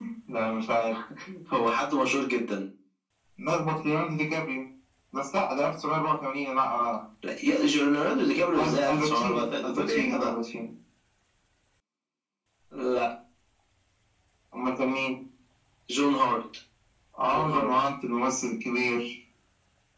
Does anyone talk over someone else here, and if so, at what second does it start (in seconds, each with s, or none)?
8.6 s